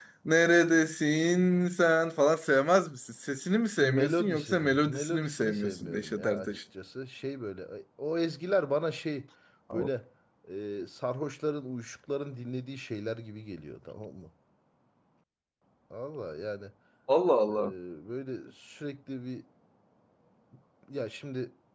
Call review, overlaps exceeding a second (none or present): present